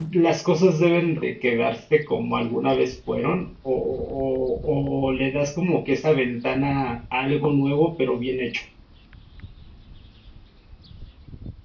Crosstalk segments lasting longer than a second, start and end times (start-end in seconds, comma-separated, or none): none